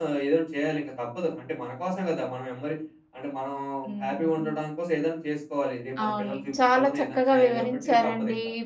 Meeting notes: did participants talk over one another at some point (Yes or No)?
Yes